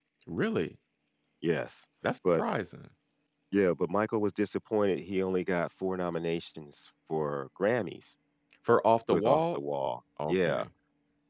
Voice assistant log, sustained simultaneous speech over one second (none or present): none